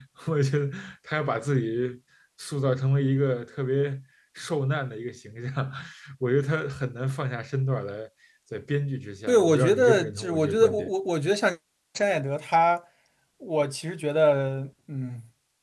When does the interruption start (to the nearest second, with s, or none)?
9 s